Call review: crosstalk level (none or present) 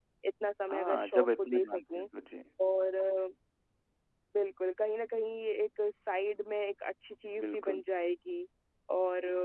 present